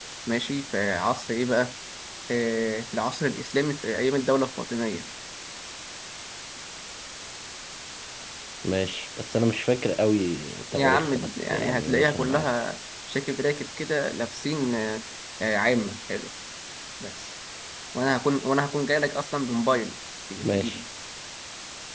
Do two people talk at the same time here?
Yes, from 10.7 s

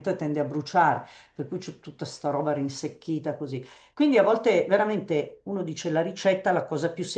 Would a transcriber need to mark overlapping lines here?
No

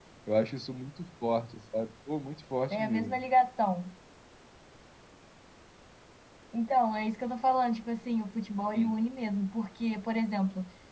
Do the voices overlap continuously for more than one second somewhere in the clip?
No

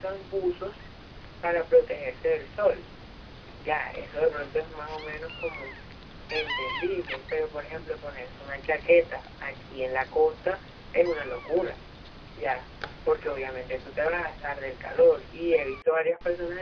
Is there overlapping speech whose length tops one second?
No

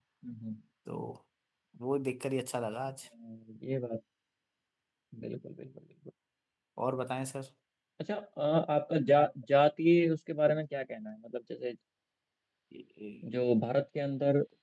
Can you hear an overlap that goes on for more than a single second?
No

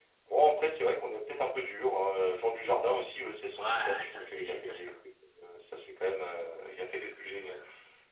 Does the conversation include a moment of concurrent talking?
Yes, from 3.6 s

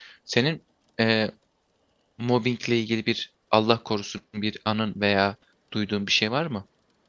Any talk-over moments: No

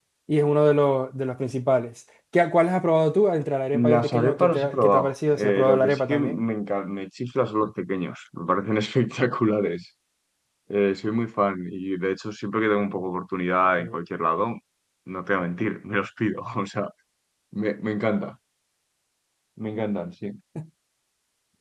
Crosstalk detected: Yes, from 3.7 s

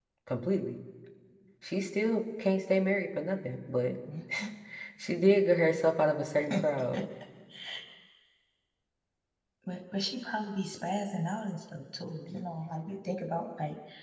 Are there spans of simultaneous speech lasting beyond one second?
No

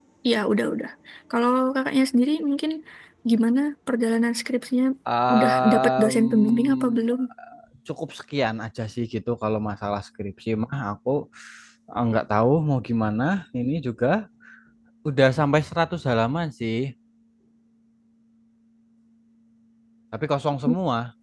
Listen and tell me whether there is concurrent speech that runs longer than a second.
Yes, from 5.3 s

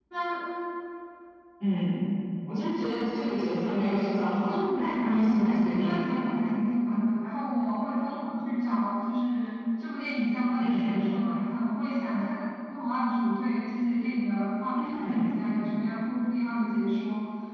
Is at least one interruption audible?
Yes, from 4.5 s

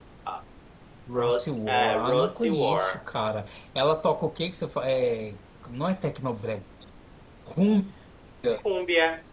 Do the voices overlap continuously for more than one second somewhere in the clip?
Yes, from 1.1 s

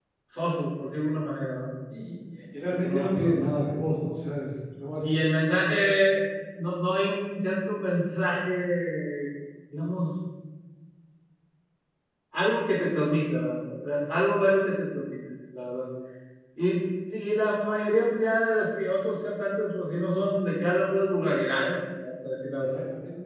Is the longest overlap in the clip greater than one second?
Yes, from 2.8 s

